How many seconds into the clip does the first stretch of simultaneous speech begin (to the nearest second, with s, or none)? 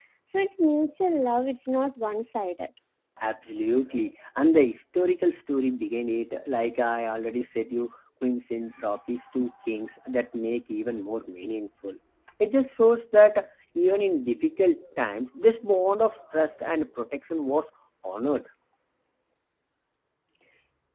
none